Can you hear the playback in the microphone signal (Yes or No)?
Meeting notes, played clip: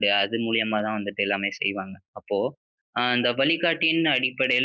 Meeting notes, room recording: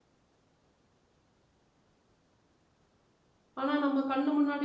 No